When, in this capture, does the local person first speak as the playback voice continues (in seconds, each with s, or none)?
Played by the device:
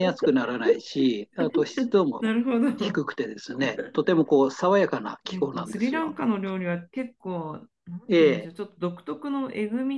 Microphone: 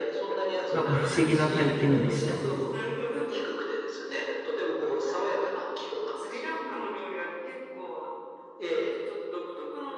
0.7 s